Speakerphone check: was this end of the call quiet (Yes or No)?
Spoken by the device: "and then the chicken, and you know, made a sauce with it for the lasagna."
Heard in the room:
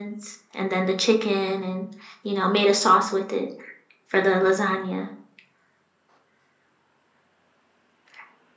Yes